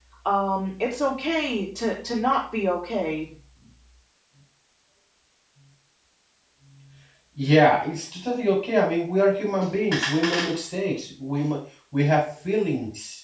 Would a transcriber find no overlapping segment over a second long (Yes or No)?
Yes